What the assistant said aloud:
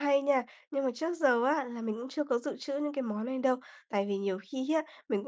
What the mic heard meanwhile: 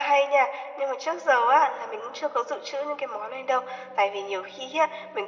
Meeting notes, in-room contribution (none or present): none